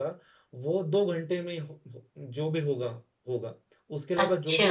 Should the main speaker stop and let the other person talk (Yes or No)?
No